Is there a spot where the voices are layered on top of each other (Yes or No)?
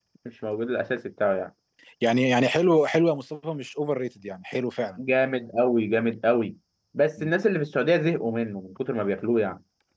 No